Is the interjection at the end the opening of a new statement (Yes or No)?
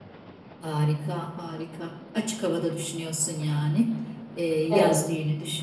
No